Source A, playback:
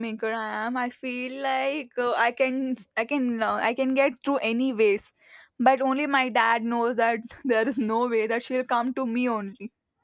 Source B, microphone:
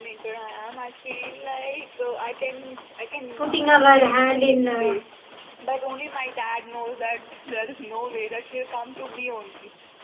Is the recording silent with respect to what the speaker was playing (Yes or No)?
No